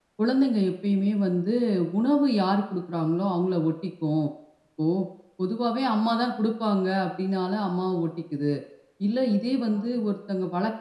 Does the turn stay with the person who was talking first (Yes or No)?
Yes